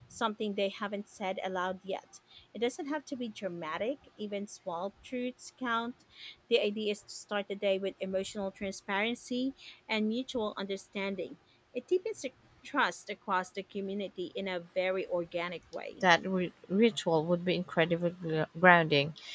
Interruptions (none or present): none